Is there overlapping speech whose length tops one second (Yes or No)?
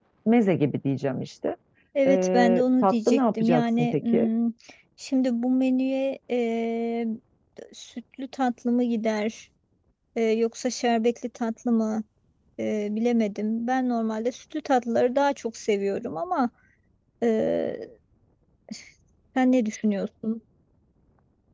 Yes